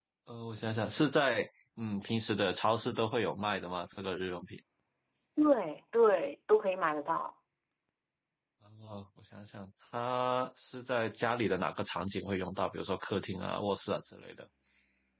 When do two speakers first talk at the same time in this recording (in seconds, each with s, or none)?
none